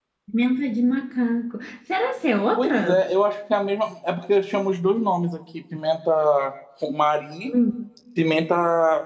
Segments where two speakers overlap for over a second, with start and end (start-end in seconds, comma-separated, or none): none